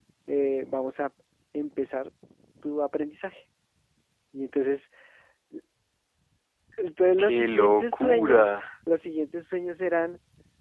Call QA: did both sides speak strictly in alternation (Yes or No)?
No